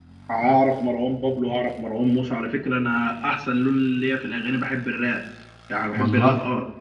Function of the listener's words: listening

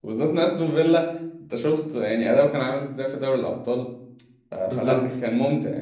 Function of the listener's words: listening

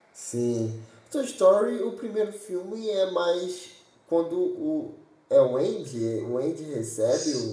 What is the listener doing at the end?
listening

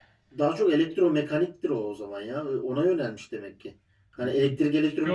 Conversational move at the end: taking over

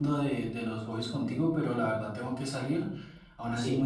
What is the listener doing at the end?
listening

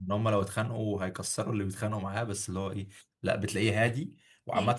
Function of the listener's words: listening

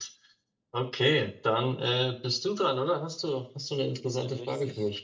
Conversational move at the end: taking over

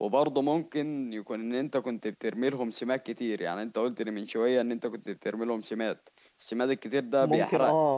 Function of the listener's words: taking over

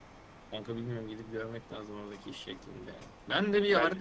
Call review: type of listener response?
listening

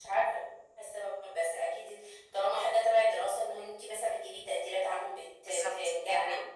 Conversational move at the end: taking over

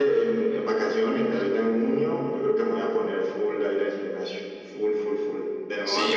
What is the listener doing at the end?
taking over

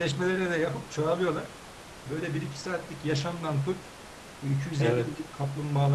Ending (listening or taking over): listening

